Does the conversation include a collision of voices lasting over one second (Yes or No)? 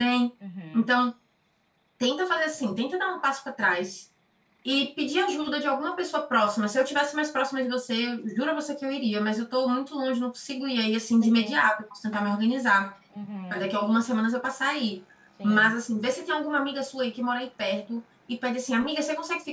No